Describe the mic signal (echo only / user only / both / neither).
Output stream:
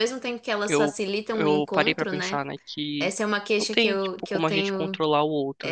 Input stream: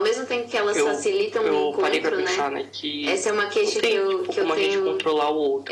echo only